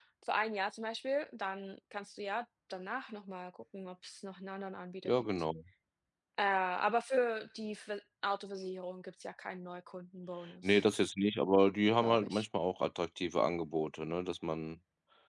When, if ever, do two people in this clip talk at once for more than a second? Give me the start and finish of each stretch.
none

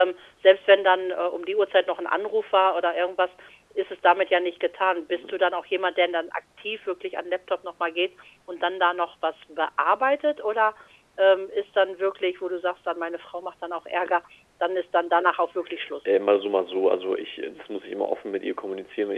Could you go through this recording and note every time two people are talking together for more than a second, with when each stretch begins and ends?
none

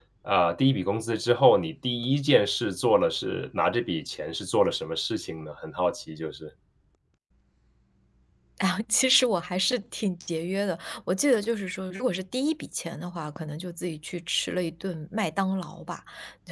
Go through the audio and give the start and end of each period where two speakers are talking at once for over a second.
none

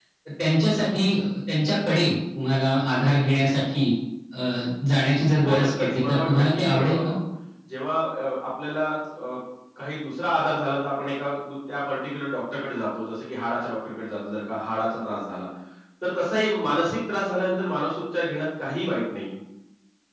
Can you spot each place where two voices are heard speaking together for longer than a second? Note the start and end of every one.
5.4-6.9

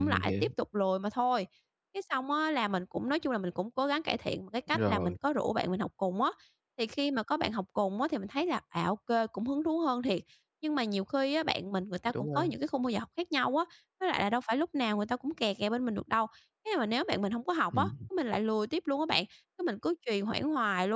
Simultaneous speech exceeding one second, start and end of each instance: none

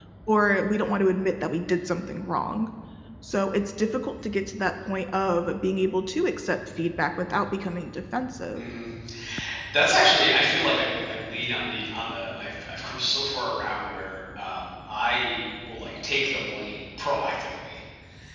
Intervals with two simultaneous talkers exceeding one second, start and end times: none

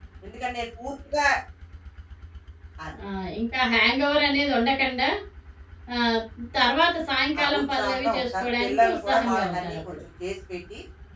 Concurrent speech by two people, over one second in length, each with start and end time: 7.4-10.0

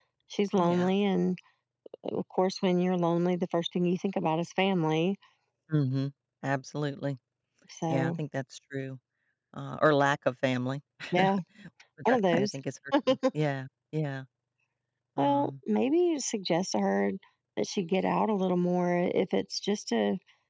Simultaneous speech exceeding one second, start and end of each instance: none

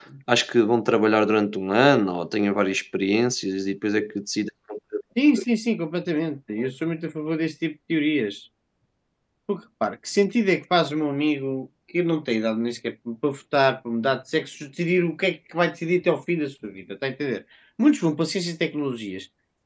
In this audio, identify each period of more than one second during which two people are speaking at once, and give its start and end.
none

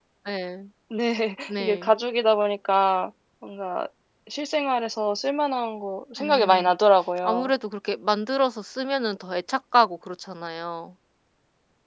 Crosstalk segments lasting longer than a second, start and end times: none

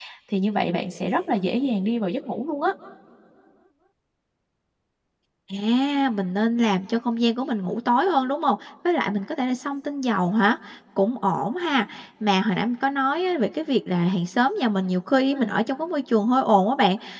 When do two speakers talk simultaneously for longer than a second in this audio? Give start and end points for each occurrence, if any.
none

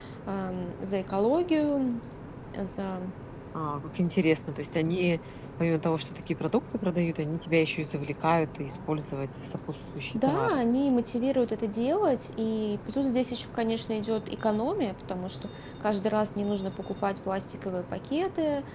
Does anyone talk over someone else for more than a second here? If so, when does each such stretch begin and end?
none

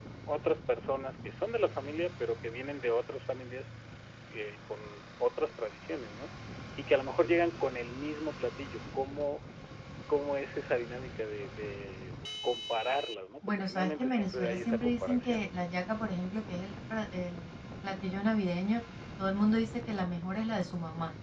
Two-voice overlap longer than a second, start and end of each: 13.4-15.4

